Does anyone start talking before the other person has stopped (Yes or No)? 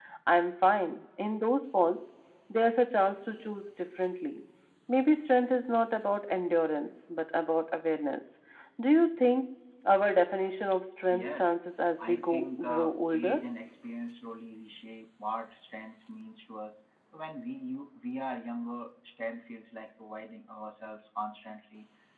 Yes